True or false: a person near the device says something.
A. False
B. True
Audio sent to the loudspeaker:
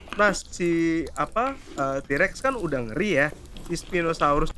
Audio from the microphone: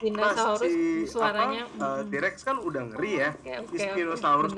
B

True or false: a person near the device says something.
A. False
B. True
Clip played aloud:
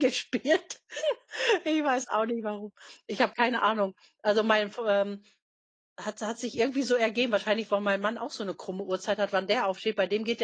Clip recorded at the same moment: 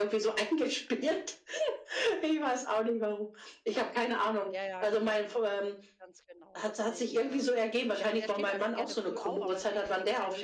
B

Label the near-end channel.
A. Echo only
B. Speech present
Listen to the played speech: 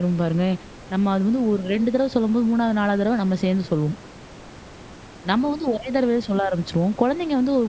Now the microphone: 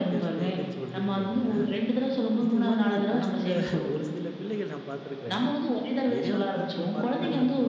B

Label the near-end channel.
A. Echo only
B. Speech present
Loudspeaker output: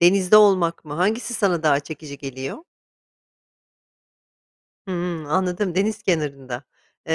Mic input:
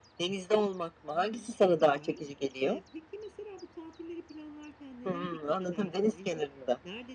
B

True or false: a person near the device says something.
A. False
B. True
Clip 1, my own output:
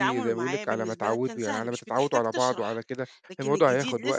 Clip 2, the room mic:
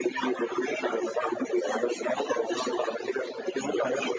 A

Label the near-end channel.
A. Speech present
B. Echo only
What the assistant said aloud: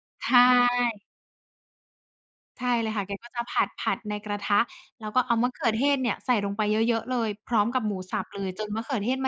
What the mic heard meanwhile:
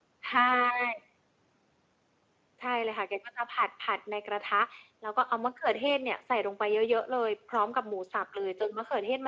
B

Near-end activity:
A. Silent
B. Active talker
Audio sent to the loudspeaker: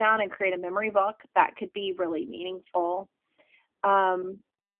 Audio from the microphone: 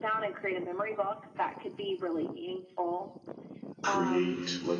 B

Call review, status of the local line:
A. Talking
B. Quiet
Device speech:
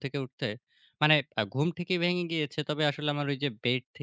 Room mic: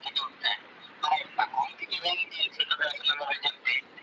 B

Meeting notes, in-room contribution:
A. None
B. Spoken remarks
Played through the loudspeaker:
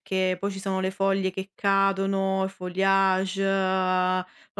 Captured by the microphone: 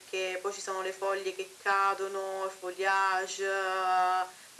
A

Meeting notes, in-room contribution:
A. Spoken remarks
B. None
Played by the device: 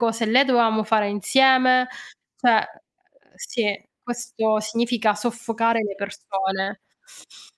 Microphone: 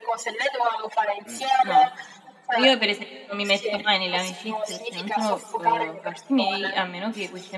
A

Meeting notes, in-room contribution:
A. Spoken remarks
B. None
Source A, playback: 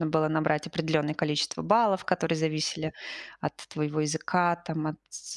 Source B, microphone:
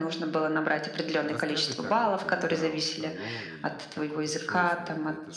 A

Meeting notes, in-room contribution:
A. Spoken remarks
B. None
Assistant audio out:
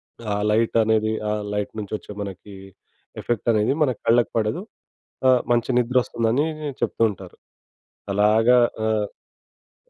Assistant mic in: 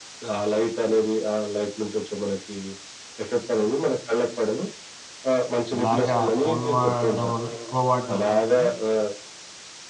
A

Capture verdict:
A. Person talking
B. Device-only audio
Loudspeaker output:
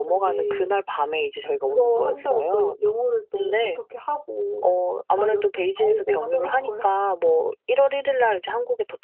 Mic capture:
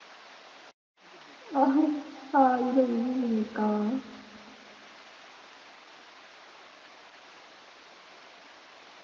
A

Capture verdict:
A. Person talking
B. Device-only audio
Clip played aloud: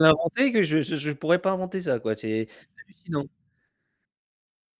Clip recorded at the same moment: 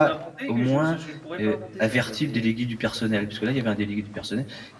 A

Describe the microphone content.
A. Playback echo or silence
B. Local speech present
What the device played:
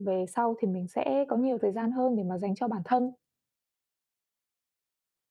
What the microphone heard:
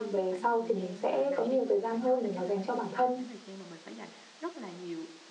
B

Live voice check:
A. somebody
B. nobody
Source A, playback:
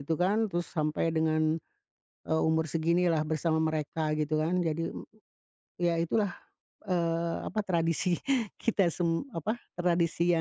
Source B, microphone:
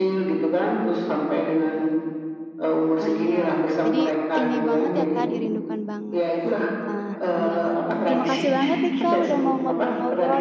A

